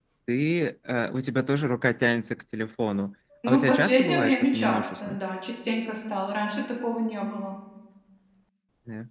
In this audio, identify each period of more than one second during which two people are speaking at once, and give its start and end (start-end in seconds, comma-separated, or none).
3.5-5.2